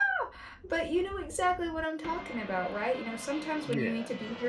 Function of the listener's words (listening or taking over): listening